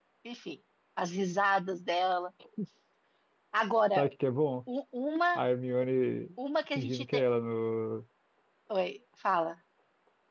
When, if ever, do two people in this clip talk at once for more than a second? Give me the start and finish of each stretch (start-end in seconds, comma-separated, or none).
none